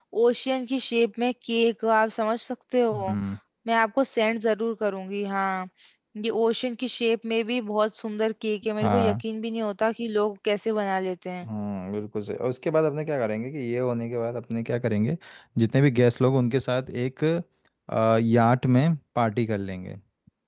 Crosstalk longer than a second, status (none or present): none